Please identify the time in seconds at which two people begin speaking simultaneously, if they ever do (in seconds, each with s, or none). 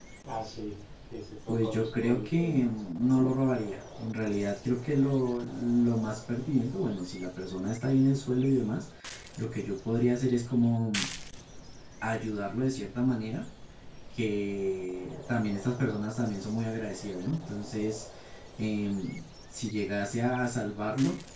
1.5 s